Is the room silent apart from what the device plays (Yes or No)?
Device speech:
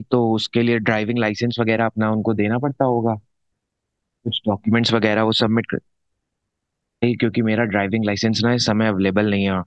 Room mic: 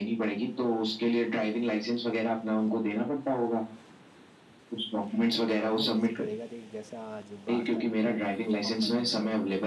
No